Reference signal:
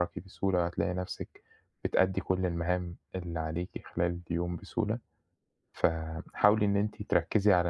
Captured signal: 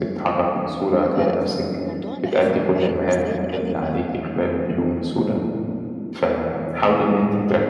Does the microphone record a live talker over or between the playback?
Yes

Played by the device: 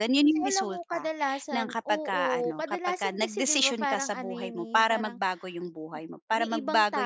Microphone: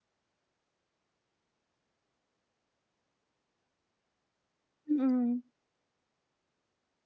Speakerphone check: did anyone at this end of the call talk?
Yes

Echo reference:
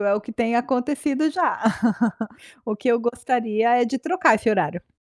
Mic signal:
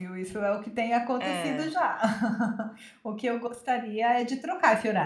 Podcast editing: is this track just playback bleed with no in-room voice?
No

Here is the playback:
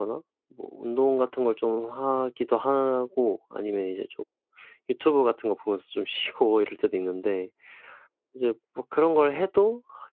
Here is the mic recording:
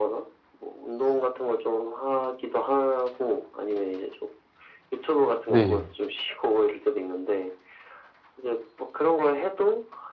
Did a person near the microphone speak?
Yes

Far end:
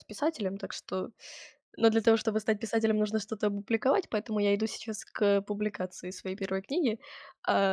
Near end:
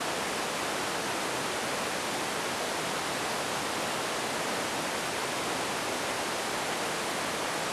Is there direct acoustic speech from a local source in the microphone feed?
No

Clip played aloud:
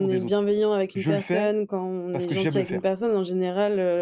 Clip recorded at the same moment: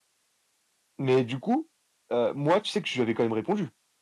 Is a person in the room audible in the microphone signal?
Yes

